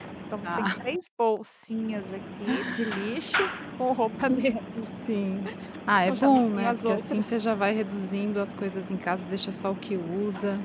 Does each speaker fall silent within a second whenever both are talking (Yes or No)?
No